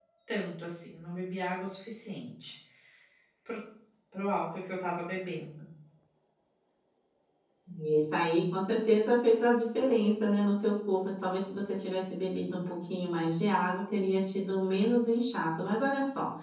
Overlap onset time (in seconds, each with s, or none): none